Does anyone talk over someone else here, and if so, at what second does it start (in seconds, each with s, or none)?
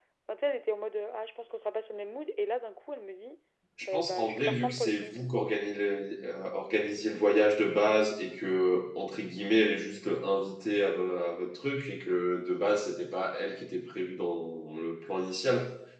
3.9 s